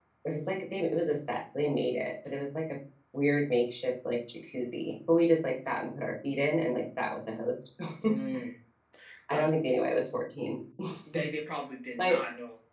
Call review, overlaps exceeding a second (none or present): none